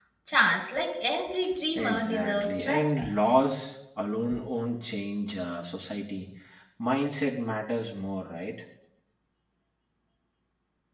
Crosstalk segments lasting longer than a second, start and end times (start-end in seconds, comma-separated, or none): 1.8-3.3